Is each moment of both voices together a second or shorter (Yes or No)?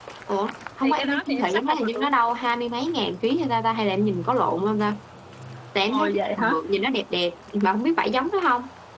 No